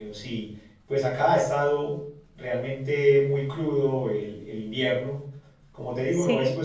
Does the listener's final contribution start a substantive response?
No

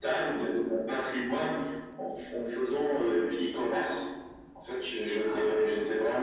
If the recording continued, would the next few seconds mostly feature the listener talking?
No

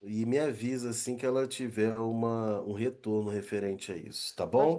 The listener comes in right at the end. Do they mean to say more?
Yes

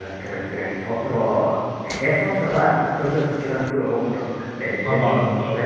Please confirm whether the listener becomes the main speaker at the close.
No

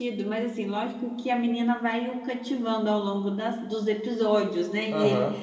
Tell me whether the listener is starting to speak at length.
No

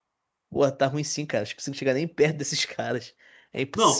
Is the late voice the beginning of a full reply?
Yes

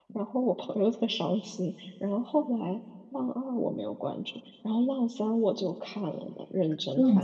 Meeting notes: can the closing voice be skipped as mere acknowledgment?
No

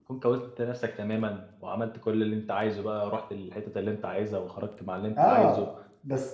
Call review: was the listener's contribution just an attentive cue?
No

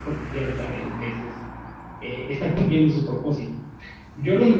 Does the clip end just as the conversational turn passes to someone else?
No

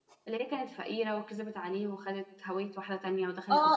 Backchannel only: No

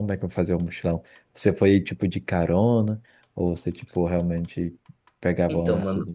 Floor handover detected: Yes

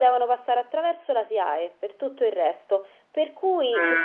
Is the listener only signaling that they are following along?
Yes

